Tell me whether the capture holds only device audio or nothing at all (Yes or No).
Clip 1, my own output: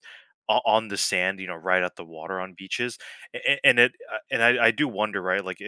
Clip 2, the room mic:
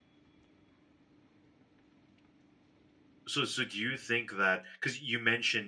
No